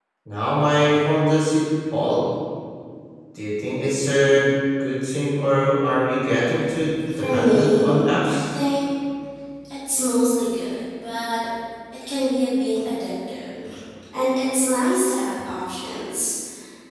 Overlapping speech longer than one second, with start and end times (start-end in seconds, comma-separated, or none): 7.2-8.4